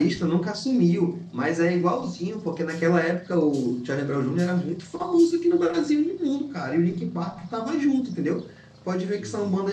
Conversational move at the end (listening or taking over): listening